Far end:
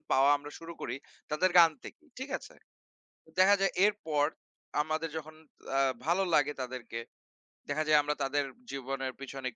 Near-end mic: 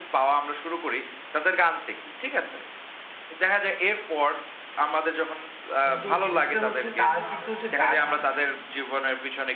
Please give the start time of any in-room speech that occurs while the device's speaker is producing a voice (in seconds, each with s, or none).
5.8 s